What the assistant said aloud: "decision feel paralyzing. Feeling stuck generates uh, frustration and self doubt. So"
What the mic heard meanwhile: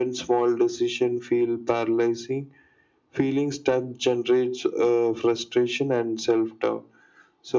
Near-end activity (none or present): none